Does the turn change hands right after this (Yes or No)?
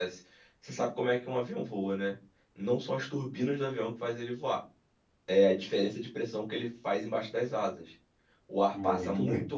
No